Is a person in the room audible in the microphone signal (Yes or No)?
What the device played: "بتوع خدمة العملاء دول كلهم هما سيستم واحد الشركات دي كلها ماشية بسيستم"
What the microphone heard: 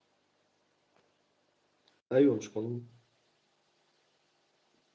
Yes